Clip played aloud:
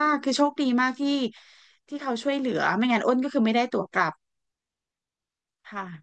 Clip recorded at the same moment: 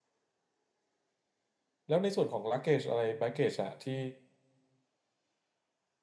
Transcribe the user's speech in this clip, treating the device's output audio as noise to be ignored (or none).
แล้วในส่วนของ luggage อะไร baggage อะที่